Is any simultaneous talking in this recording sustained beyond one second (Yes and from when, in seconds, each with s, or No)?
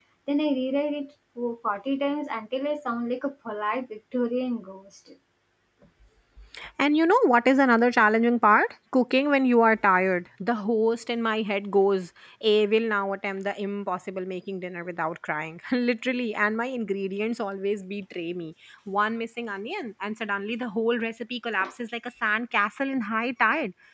No